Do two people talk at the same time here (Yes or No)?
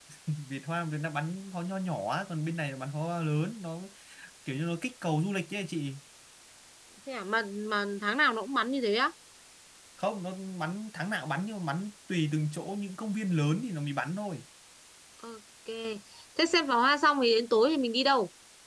No